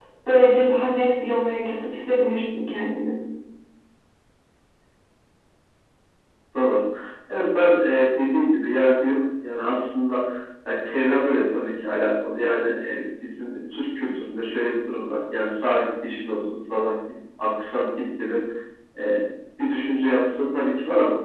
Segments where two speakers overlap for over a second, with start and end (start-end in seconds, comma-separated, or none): none